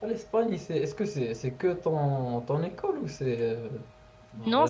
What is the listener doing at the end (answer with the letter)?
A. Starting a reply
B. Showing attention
A